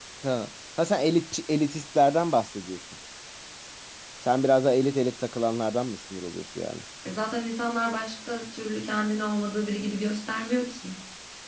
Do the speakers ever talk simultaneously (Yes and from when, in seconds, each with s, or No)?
No